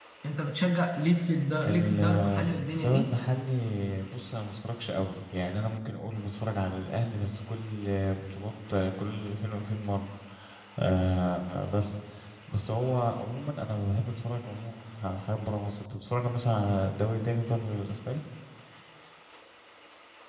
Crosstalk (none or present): present